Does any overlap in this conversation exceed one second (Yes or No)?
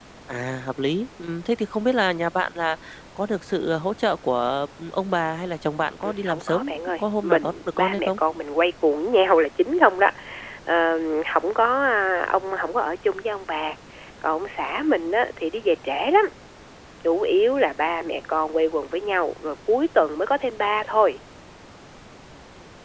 Yes